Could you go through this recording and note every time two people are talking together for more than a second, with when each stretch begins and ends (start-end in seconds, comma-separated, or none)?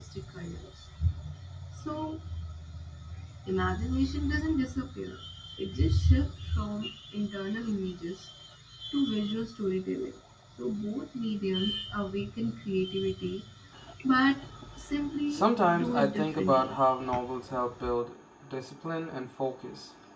15.3-16.8